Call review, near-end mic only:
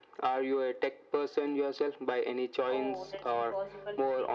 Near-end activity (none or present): present